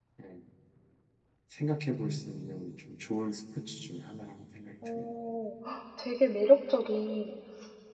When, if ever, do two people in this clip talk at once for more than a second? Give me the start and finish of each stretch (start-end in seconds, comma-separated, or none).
none